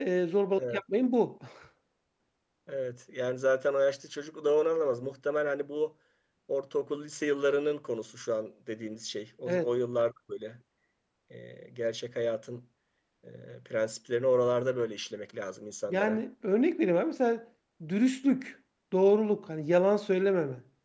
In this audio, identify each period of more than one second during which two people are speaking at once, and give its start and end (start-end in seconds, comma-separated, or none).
none